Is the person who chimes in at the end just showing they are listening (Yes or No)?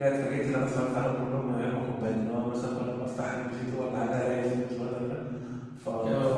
Yes